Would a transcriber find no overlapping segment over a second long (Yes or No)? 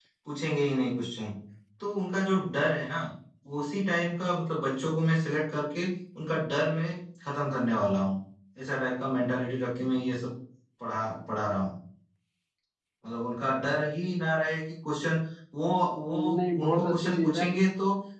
No